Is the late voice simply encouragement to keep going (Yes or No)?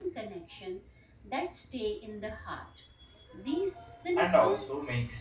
No